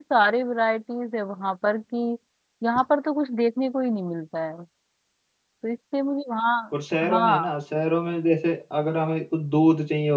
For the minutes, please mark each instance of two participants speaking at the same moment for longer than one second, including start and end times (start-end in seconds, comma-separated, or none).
none